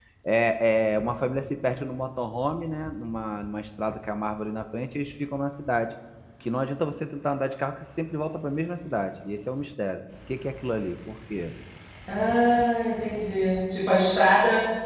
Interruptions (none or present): none